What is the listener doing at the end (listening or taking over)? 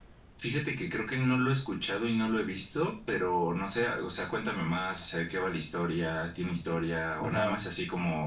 listening